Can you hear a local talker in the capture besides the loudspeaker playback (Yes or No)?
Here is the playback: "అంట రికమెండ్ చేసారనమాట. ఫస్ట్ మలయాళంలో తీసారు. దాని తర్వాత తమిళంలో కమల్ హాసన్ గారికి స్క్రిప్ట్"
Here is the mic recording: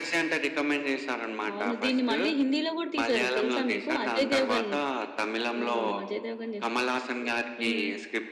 Yes